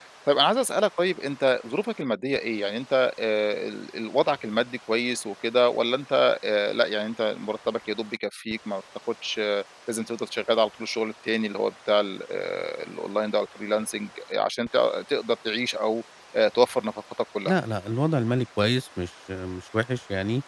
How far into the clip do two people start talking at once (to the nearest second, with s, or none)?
none